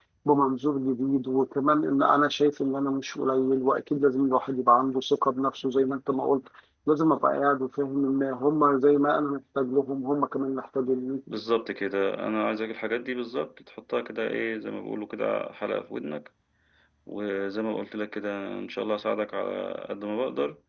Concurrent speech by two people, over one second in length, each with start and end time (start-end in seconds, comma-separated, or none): none